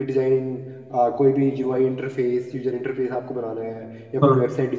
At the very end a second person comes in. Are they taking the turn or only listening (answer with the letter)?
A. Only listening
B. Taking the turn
A